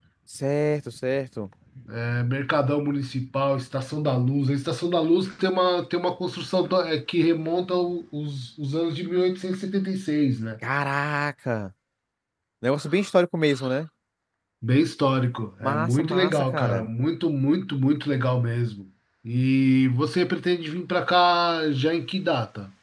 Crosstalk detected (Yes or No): Yes